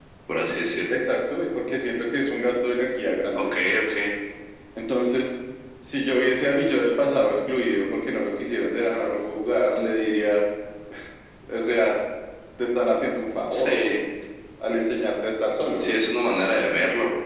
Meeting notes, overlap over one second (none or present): none